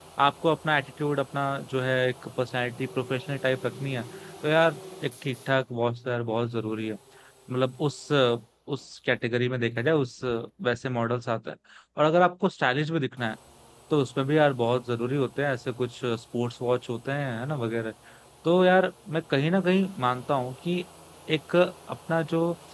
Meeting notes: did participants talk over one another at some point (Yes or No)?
No